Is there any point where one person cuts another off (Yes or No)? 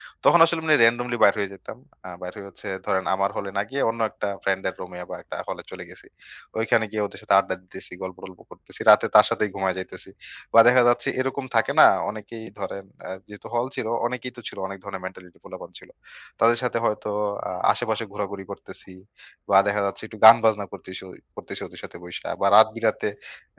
No